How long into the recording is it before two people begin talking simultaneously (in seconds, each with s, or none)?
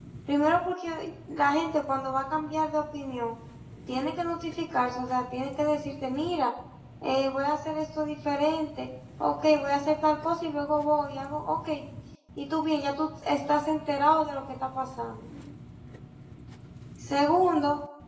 none